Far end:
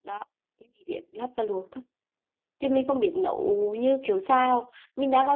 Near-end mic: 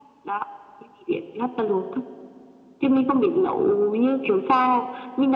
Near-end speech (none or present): none